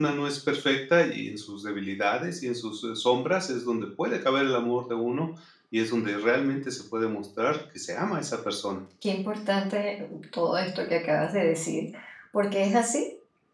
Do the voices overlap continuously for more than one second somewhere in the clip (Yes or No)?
No